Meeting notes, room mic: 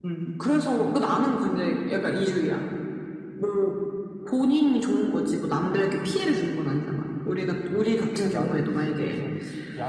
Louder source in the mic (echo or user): echo